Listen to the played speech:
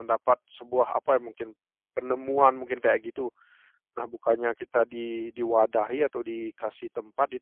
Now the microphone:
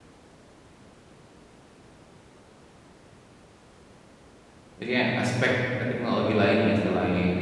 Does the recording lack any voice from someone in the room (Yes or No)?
No